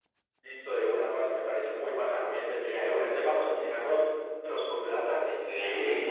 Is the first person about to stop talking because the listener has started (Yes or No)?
Yes